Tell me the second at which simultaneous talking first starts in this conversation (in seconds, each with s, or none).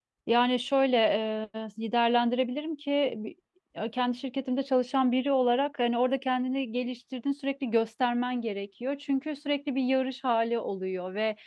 none